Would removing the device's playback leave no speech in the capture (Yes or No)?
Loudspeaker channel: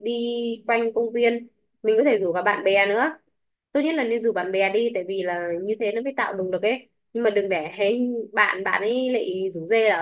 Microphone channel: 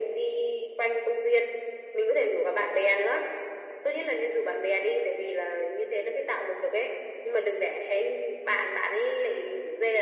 Yes